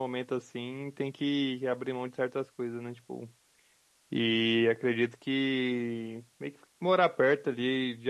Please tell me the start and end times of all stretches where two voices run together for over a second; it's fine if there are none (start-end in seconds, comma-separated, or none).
none